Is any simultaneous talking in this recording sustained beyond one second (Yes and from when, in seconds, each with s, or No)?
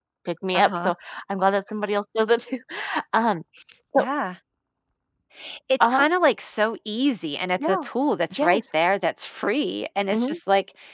No